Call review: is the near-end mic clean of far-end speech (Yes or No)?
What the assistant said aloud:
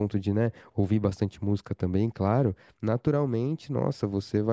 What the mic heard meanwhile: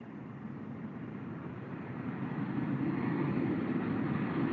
Yes